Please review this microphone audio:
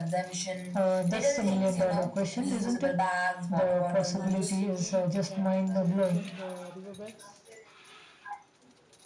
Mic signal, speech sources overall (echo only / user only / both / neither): both